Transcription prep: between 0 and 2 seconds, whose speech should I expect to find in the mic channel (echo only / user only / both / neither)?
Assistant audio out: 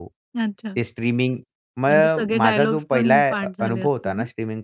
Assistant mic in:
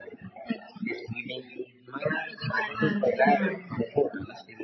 echo only